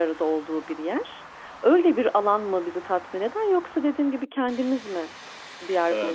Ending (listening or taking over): taking over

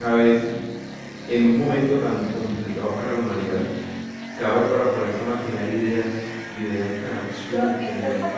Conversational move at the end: taking over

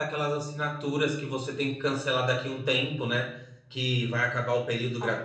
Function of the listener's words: listening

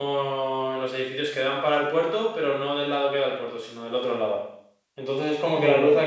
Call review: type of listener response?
listening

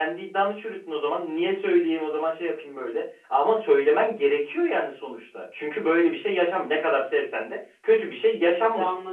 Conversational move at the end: taking over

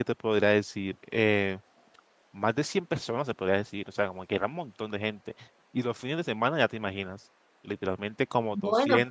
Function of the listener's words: listening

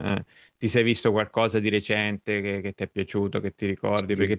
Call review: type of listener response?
listening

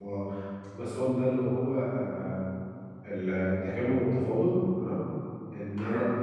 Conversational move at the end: listening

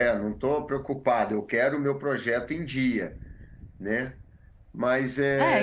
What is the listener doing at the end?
taking over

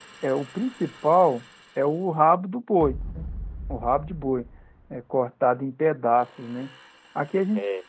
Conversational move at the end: listening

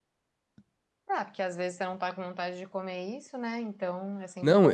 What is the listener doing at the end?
taking over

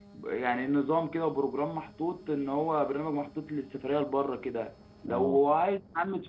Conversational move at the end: listening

